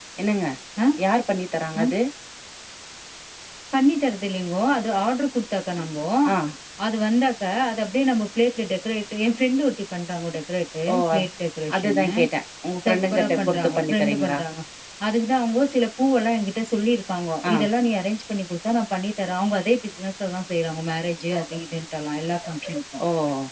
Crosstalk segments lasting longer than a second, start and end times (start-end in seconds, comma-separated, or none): 12.9-14.4